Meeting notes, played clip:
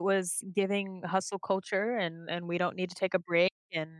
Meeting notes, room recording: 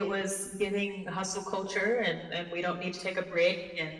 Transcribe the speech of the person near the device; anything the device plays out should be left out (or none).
none